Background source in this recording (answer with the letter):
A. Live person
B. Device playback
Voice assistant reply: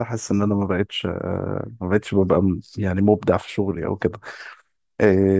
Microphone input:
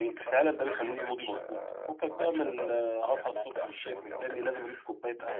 B